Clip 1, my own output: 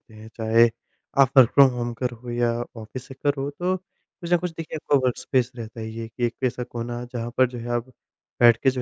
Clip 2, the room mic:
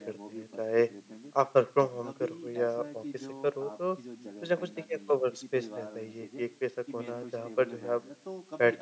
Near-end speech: present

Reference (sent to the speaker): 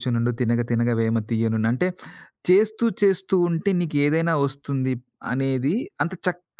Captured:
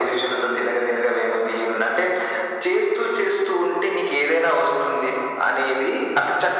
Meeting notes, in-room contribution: none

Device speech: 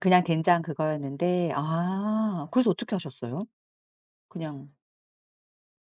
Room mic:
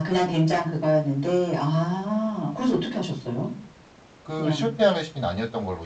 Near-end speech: present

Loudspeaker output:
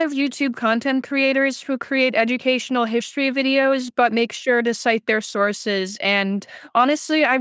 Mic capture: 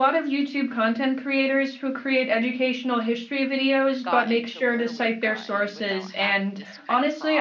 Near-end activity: present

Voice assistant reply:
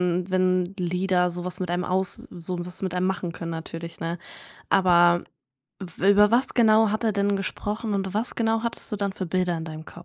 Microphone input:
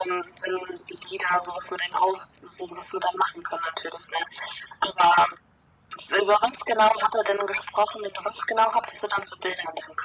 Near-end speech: none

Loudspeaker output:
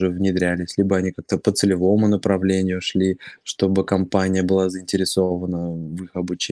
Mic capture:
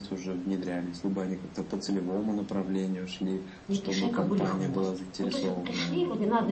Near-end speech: present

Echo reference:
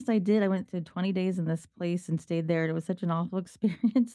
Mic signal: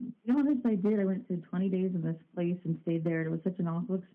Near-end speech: none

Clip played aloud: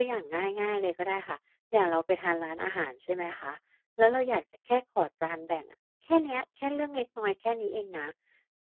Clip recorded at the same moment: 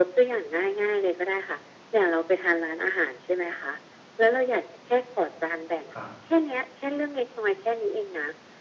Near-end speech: present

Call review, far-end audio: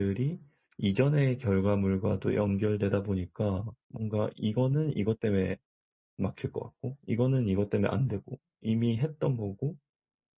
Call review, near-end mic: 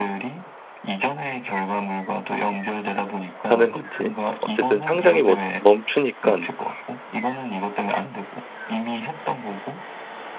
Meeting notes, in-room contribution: present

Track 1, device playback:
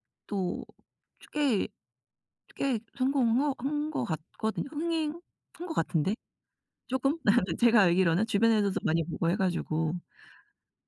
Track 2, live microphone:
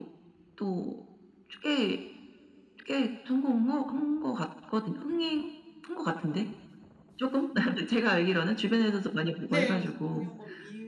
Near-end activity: present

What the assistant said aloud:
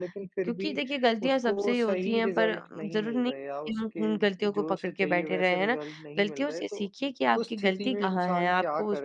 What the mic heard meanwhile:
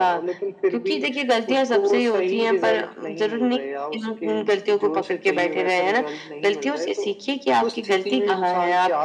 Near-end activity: none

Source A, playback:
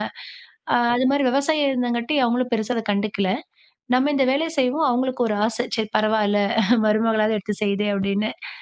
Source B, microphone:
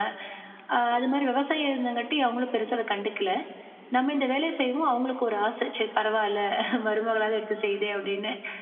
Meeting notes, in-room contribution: none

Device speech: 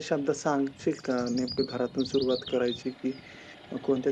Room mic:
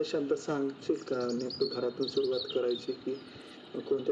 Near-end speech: none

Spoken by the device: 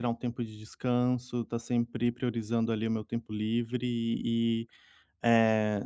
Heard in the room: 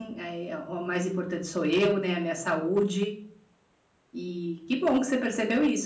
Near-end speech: present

